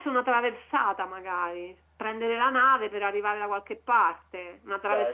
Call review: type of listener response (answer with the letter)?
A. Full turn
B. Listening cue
B